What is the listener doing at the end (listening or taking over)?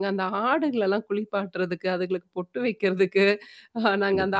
listening